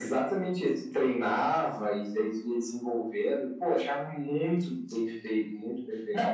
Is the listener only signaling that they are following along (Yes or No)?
No